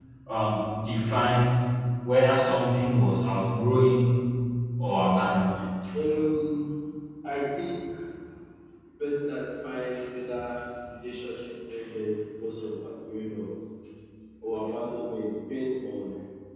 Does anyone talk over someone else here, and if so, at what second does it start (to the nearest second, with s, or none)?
none